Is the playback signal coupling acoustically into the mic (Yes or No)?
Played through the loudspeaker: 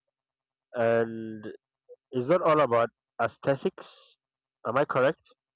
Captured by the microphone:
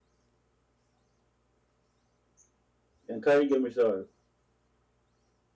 No